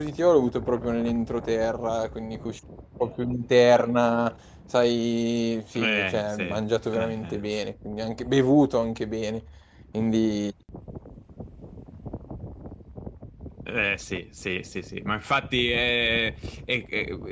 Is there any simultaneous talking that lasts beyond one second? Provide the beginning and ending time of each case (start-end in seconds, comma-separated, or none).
5.8-7.4